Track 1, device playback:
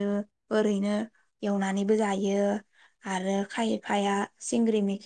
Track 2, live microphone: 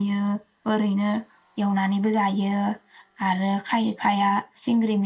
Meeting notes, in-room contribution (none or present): none